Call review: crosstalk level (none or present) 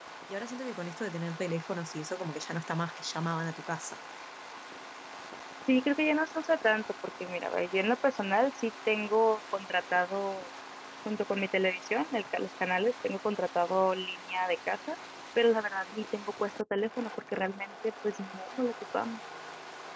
none